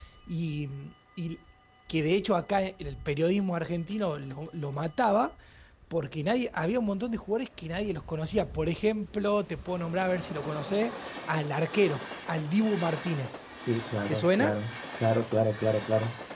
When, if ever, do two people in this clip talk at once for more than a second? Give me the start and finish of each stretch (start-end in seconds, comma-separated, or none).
none